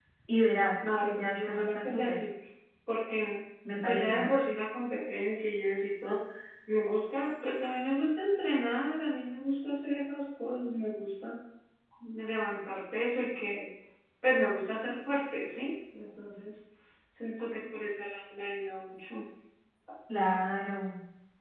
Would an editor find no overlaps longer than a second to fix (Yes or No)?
No